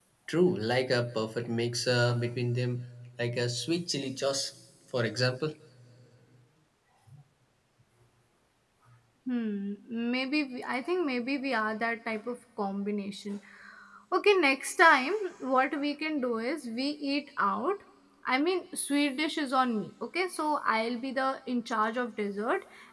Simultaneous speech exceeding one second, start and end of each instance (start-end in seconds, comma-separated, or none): none